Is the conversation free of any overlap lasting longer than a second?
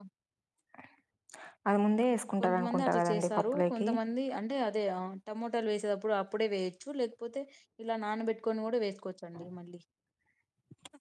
No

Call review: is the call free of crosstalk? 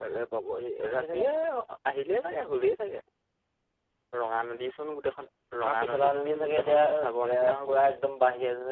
No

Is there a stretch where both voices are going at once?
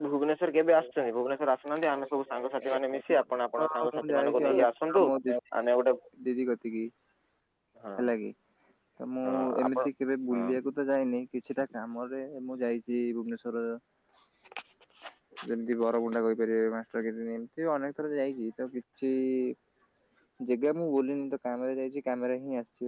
Yes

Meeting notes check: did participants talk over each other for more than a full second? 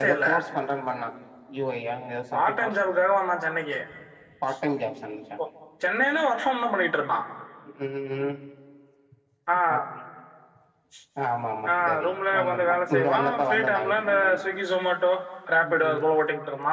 Yes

